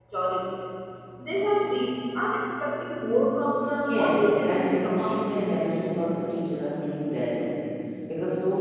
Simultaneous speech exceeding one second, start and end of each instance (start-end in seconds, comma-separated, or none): 3.8-5.2